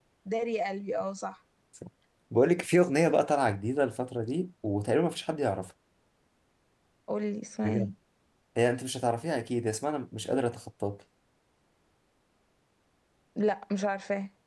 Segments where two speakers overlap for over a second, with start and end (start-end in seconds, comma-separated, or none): none